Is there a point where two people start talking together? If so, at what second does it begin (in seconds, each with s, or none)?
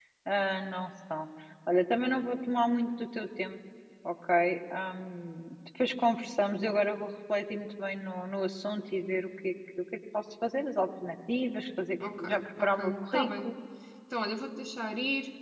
12.0 s